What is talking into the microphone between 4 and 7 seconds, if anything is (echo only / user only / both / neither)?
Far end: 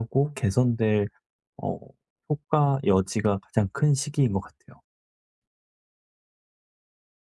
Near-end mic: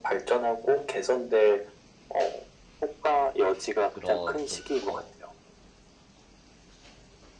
both